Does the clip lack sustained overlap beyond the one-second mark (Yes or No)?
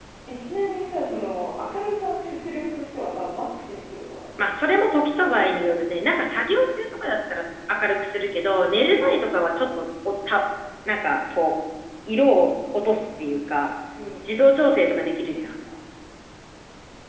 Yes